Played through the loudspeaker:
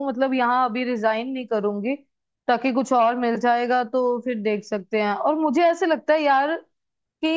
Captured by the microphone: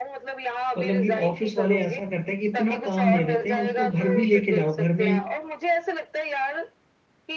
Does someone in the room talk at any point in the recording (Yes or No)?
Yes